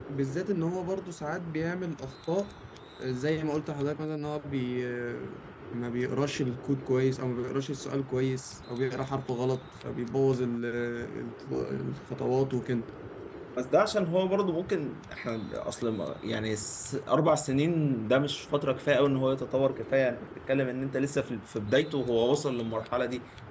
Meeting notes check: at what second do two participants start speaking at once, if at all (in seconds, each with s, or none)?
none